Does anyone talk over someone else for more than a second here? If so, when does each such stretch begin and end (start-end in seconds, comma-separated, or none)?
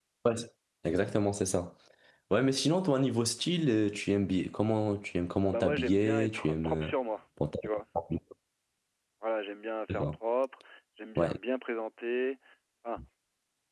5.4-6.9